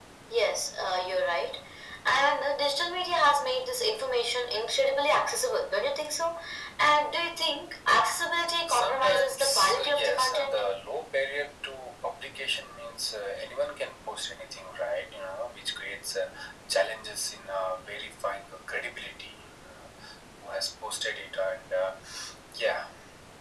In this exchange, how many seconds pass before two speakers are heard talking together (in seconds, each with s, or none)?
8.7 s